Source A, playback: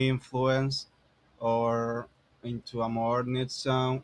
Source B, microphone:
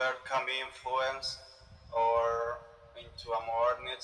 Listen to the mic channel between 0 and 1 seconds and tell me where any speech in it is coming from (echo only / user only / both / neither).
echo only